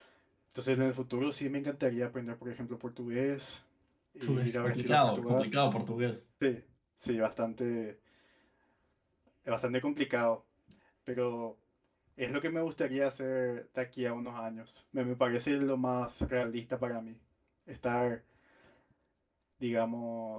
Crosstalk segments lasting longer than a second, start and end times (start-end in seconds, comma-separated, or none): 4.2-5.5